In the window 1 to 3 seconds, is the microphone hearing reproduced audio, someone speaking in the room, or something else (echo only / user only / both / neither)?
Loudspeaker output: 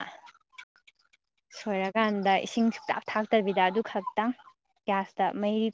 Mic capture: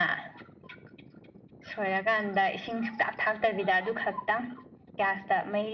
echo only